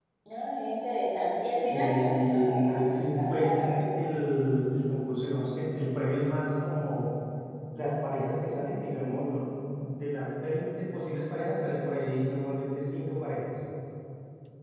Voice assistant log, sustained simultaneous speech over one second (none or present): present